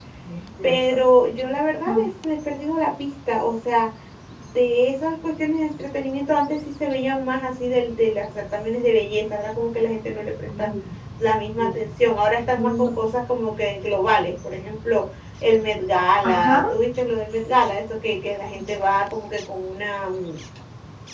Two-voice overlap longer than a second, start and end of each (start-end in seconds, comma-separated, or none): none